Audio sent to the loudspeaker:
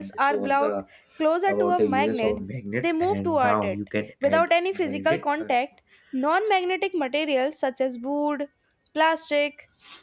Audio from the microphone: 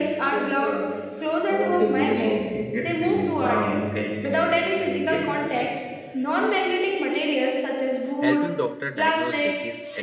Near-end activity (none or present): present